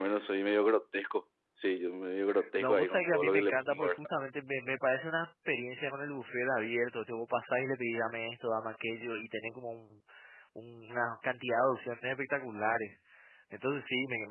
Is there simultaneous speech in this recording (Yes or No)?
Yes